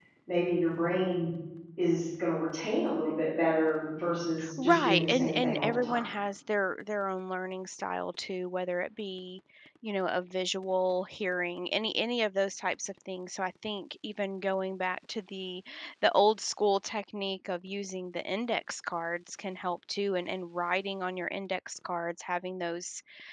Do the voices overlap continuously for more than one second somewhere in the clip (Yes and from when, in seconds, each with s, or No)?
Yes, from 4.4 s